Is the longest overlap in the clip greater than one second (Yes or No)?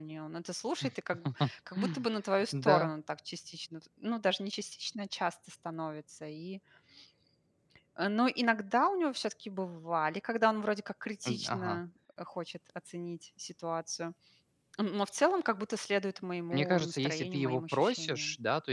Yes